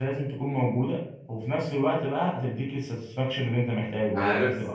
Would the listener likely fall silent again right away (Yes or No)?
No